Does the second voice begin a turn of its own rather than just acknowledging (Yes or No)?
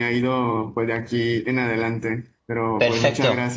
Yes